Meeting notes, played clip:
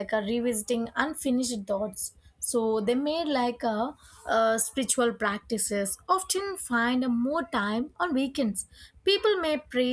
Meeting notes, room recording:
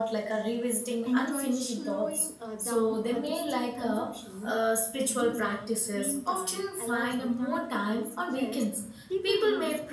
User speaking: Yes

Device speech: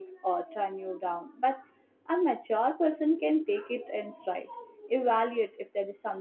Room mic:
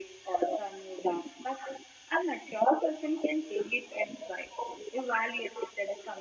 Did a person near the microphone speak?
No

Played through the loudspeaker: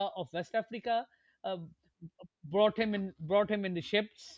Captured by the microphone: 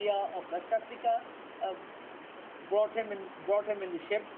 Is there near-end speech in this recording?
No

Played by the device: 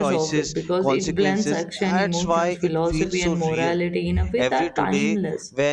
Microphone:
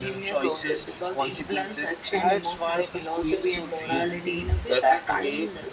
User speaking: No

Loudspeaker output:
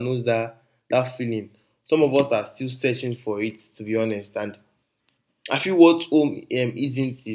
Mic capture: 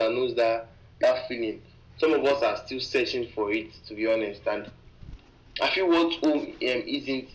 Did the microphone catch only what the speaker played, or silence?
Yes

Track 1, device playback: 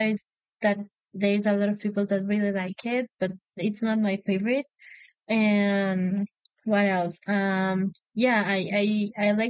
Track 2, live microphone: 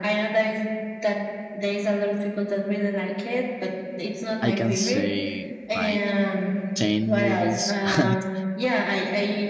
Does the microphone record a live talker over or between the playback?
Yes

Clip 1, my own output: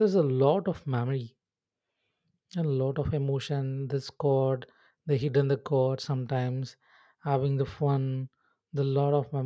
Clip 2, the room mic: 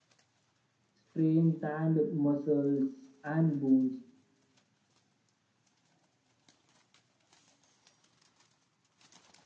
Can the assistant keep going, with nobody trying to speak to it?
No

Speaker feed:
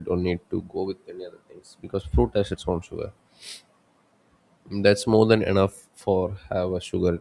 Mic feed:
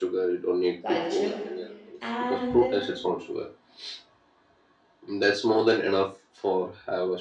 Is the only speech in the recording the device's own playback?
No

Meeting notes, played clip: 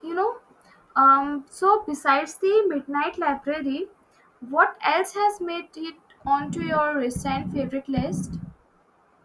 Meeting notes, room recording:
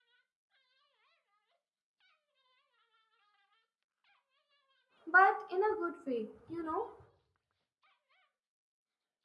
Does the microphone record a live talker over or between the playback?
Yes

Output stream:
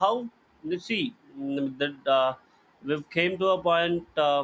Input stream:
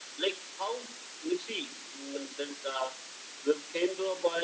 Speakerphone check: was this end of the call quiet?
Yes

